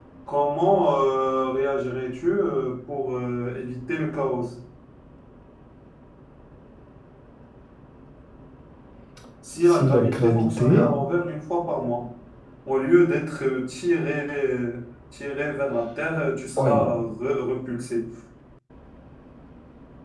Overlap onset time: 9.7 s

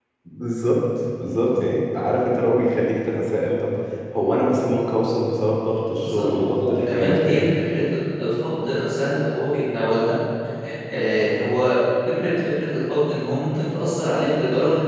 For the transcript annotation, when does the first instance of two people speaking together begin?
6.0 s

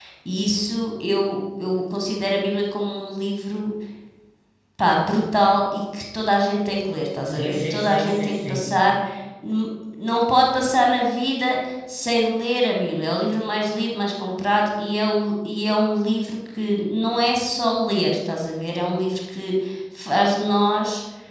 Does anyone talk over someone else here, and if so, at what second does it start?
7.3 s

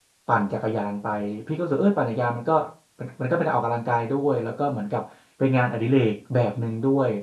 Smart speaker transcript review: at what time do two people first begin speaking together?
none

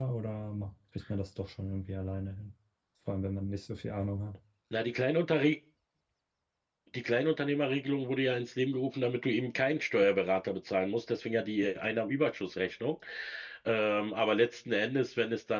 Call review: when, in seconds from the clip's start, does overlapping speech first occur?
none

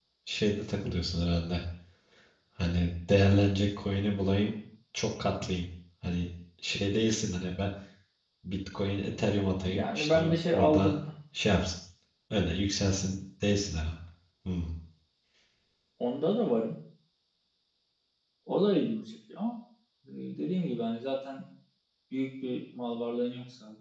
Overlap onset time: 9.7 s

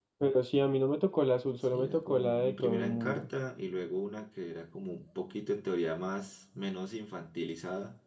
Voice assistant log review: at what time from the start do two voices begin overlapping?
1.7 s

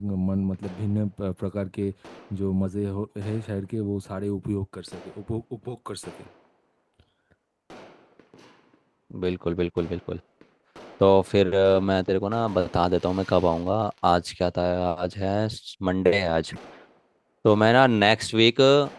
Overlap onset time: none

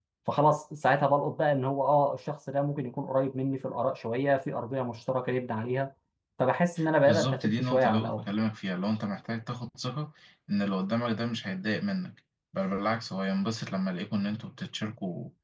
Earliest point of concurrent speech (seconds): 7.0 s

